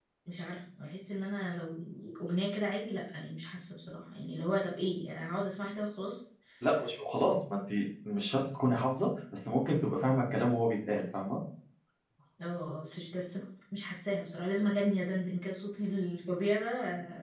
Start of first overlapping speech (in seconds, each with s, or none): none